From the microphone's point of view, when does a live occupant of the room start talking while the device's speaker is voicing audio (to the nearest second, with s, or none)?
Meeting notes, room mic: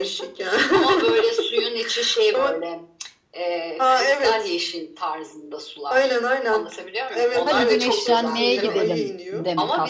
7 s